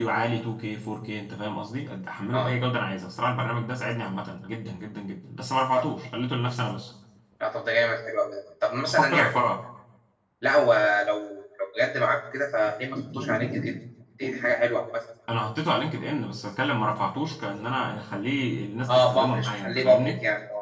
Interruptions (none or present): present